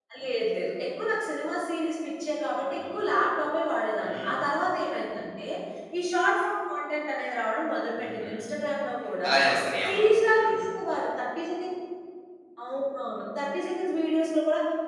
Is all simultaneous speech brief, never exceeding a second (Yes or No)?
Yes